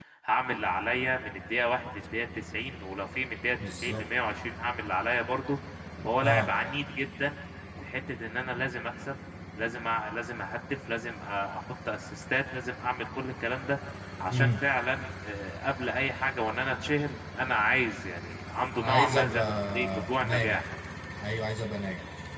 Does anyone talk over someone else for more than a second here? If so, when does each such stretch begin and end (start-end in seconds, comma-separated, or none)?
18.8-20.6